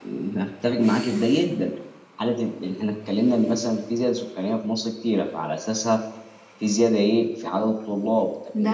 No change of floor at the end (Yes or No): Yes